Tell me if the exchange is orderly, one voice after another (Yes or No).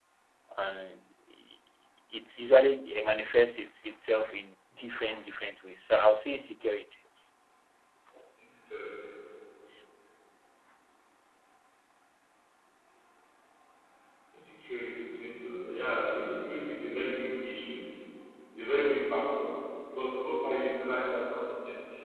Yes